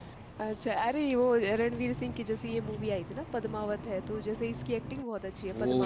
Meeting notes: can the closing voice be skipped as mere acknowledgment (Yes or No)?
No